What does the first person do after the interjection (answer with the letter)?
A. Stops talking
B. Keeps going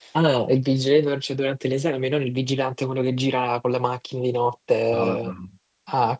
B